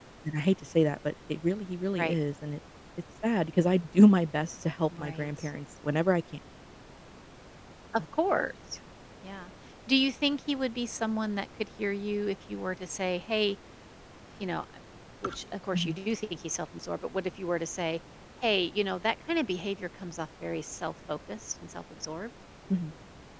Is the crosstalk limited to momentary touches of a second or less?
Yes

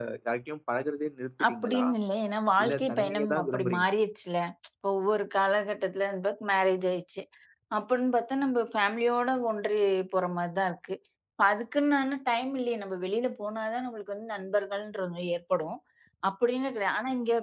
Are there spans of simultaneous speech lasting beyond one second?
Yes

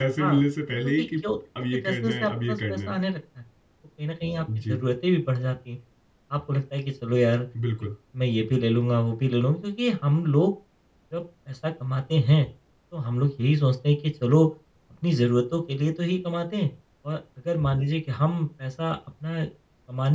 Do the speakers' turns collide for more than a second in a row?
Yes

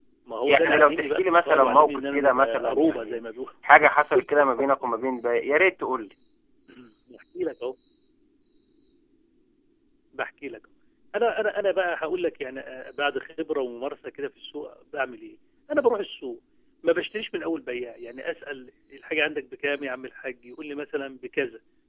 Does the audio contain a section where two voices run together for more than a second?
Yes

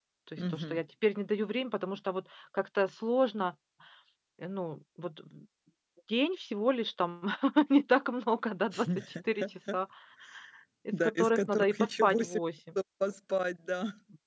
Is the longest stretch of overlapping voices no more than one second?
No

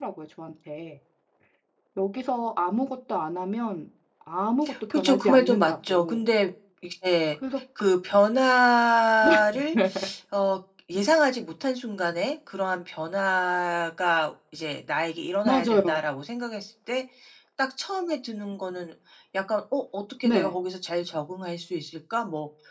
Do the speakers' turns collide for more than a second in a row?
Yes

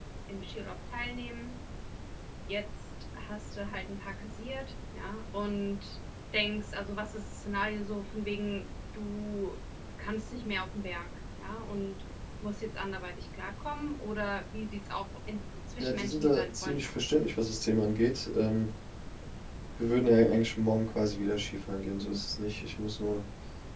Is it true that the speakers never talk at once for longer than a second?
No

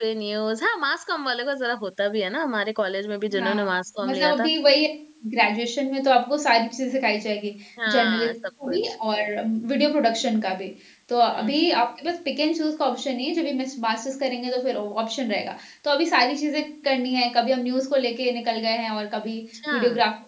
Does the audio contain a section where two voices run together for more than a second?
No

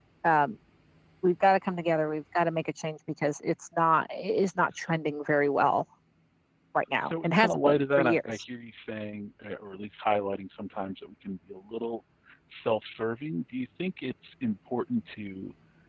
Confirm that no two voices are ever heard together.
No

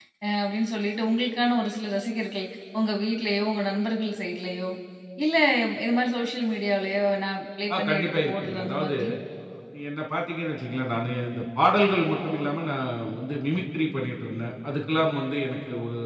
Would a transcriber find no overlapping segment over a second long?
No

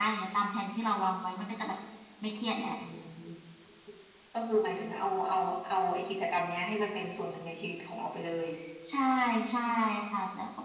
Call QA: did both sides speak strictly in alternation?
Yes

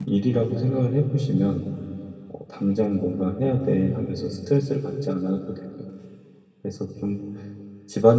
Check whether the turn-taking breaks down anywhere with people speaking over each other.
No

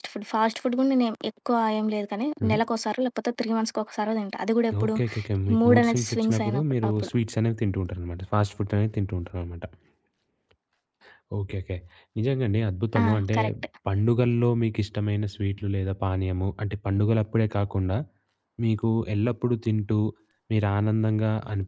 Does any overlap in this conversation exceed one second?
Yes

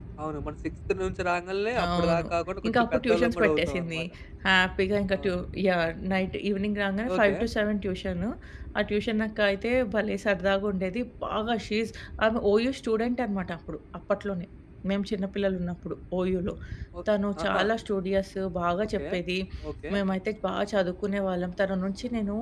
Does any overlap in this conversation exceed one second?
Yes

